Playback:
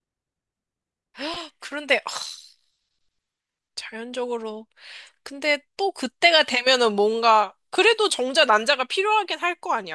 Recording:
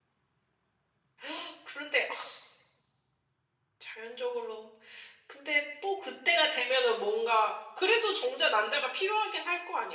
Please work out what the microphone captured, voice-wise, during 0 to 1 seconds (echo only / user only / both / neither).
neither